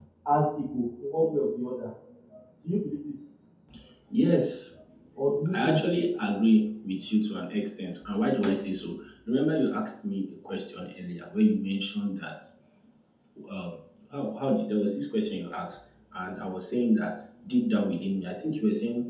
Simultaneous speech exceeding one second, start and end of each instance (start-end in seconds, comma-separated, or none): none